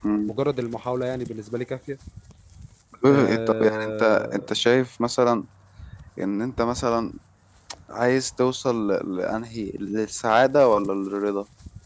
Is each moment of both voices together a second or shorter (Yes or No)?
No